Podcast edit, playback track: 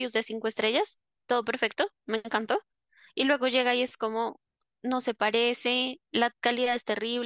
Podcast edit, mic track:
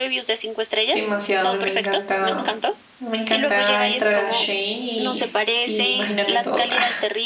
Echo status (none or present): present